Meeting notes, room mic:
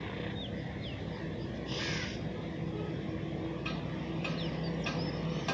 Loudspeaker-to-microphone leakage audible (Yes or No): No